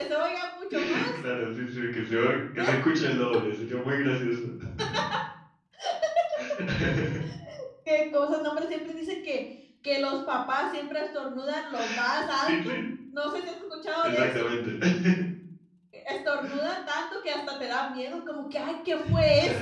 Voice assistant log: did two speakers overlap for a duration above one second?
No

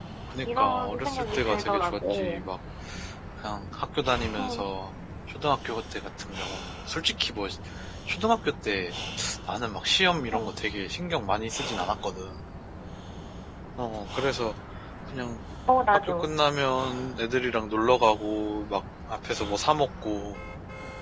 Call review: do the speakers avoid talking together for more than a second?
No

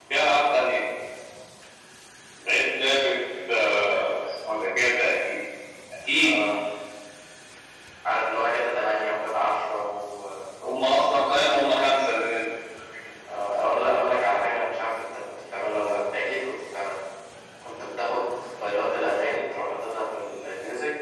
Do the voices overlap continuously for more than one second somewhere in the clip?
No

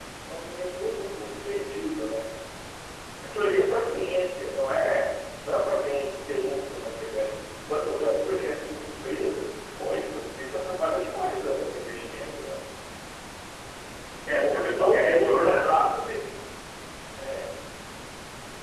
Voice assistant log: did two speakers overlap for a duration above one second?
Yes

